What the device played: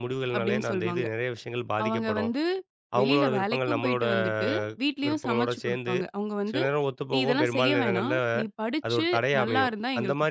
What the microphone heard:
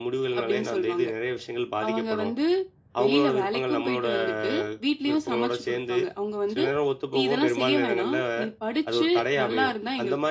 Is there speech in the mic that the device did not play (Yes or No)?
No